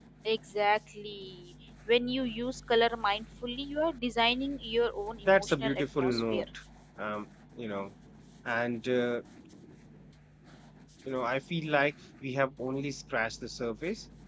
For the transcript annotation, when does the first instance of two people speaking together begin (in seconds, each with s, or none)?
5.2 s